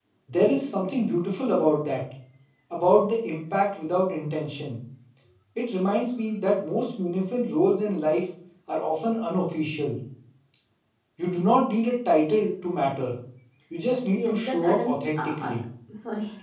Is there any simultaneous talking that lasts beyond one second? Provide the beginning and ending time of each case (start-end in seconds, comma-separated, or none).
14.1-15.5